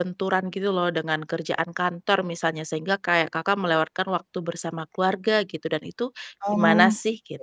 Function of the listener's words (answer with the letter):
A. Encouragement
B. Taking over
B